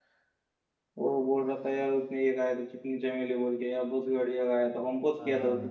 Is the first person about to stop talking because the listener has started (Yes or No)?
Yes